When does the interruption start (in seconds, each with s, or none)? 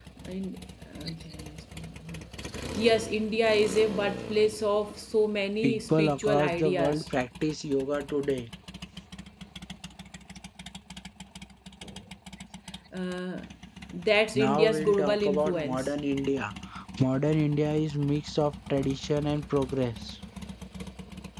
5.6 s